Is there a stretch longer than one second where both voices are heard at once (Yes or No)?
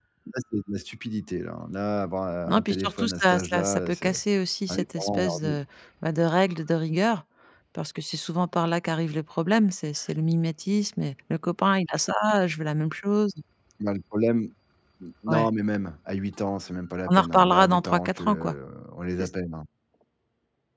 Yes